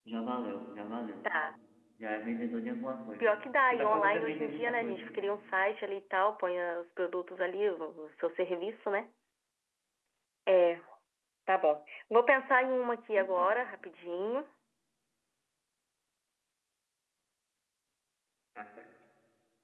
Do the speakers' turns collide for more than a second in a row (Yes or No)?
Yes